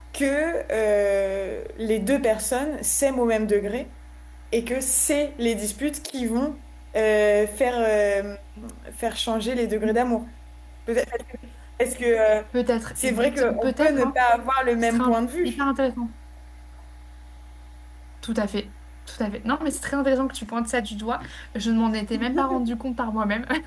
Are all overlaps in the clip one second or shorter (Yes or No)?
No